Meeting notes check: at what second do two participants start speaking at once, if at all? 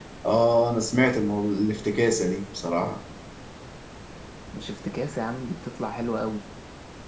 none

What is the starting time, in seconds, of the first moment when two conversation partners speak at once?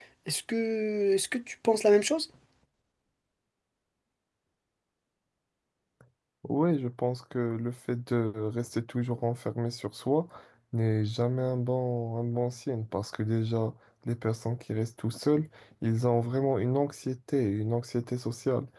none

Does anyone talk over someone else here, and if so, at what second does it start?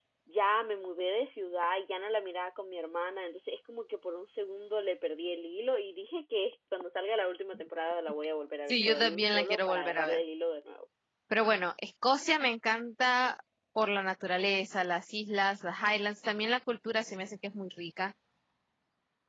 8.7 s

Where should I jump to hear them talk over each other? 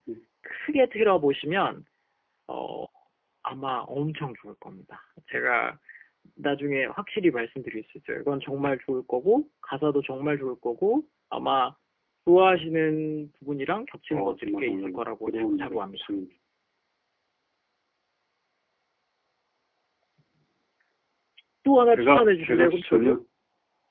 14.1 s

